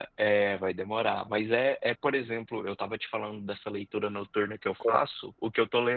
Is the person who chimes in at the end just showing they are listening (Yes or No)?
Yes